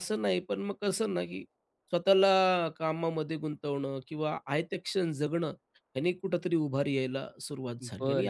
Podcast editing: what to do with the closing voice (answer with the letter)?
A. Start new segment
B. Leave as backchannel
A